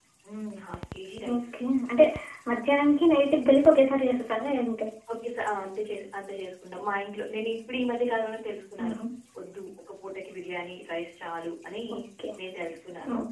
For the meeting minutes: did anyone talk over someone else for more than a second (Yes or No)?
No